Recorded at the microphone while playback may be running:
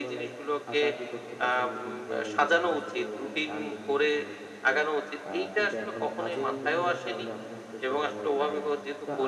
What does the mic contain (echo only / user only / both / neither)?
both